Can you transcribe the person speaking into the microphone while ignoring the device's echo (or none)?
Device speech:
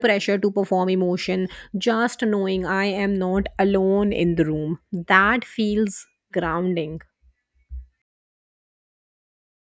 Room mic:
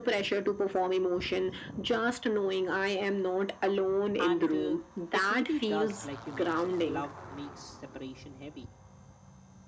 And uh, it really does, like you mentioned, love makes separation heavy.